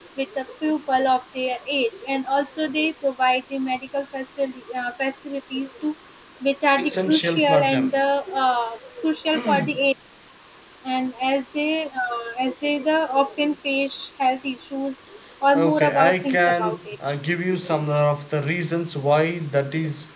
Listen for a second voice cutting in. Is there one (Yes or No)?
Yes